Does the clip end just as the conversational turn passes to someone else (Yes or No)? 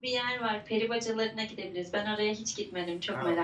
Yes